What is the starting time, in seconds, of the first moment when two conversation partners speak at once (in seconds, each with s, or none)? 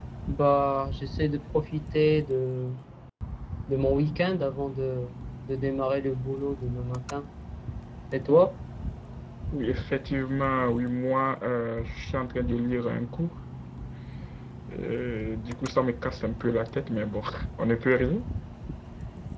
none